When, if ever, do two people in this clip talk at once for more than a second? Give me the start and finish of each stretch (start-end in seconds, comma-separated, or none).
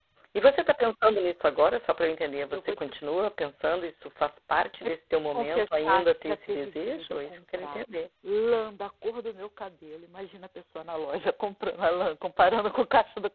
5.3-7.8